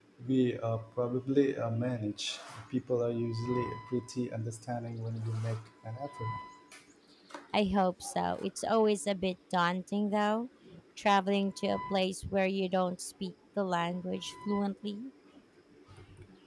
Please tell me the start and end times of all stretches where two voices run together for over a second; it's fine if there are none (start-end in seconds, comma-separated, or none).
none